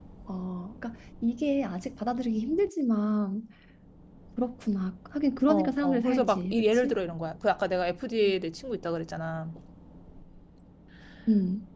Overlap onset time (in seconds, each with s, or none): 5.5 s